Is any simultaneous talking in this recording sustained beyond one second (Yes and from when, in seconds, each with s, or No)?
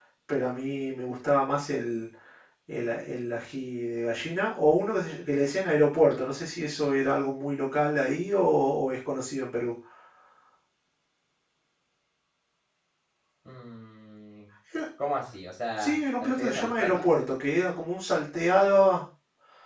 Yes, from 15.8 s